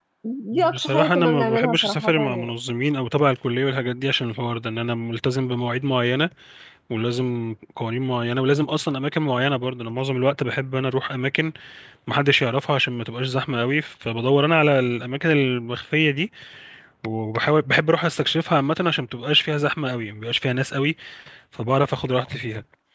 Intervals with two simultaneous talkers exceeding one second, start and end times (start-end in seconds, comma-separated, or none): 0.7-2.5